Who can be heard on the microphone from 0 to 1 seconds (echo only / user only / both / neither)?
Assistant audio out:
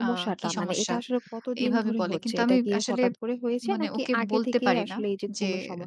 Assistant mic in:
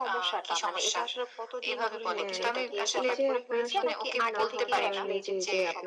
echo only